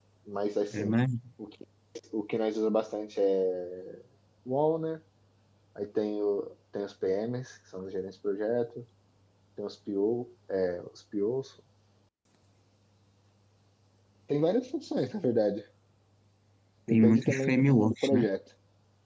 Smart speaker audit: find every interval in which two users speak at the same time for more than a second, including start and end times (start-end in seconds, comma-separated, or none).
16.9-18.2